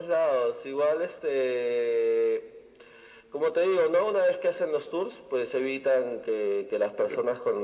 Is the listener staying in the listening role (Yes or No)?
Yes